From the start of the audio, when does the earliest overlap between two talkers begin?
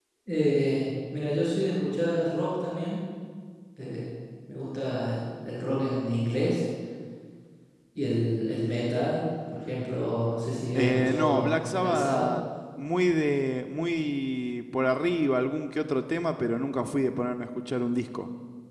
10.8 s

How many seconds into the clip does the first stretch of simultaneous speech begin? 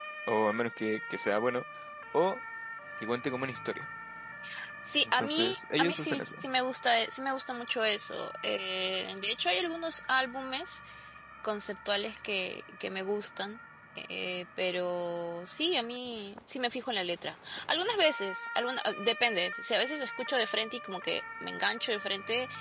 5.2 s

